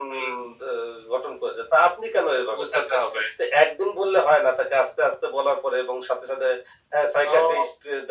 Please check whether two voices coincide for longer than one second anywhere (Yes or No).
No